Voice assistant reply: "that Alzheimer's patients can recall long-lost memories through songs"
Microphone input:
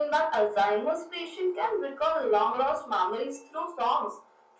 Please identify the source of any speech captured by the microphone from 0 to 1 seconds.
echo only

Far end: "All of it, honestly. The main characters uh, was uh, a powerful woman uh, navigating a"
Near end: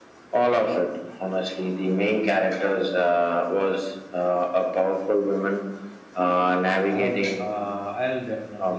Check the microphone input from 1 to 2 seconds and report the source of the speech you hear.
echo only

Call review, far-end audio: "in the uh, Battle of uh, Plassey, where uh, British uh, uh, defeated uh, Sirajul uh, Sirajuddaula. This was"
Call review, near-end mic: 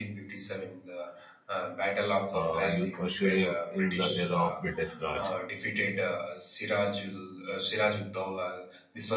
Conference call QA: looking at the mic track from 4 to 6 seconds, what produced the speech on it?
both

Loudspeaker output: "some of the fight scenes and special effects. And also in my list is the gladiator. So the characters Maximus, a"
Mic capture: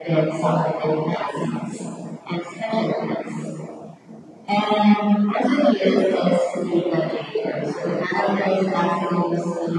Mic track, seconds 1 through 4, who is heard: echo only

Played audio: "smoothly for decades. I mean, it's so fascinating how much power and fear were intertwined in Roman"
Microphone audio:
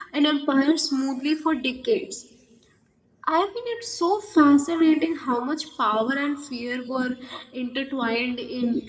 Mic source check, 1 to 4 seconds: echo only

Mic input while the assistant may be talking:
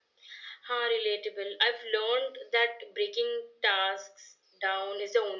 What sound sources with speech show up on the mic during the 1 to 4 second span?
echo only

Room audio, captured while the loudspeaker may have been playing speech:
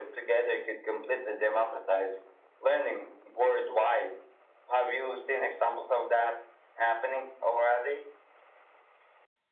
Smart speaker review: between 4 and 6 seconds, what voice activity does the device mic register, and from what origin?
echo only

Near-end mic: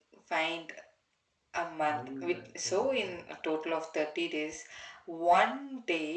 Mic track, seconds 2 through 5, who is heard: both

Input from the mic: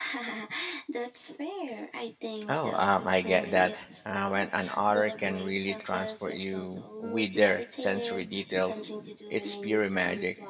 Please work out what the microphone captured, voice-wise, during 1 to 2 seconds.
echo only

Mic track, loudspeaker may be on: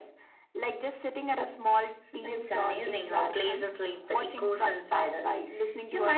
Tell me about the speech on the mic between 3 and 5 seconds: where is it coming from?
echo only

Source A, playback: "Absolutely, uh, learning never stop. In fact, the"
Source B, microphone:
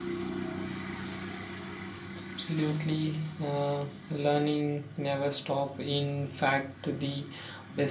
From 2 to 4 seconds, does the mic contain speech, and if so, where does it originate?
echo only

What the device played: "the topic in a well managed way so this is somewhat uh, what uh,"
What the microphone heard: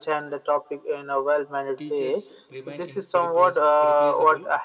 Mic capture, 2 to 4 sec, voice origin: both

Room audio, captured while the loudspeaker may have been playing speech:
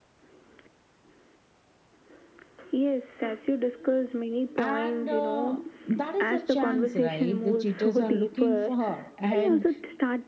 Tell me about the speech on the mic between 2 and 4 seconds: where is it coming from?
echo only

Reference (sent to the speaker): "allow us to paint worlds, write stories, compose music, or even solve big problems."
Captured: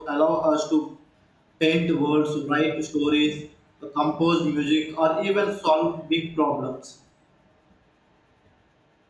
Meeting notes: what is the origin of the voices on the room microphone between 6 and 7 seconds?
echo only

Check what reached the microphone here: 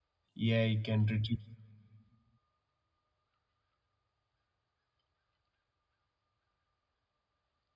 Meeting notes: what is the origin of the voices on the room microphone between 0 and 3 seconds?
user only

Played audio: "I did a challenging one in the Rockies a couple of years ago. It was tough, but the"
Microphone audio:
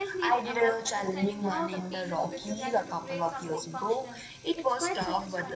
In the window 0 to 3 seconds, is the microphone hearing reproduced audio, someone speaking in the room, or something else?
both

